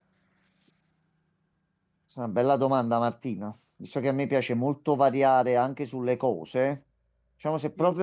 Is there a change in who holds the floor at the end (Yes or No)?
No